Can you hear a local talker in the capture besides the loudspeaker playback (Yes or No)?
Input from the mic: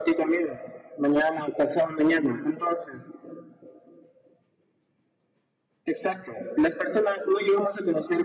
No